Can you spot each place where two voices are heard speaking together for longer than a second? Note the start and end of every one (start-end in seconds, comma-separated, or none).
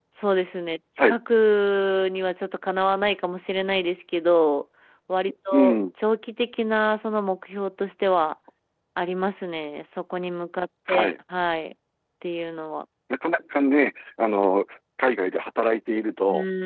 none